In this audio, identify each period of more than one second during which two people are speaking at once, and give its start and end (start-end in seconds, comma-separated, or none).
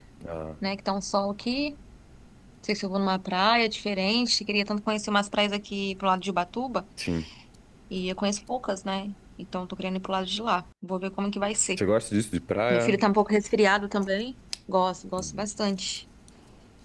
none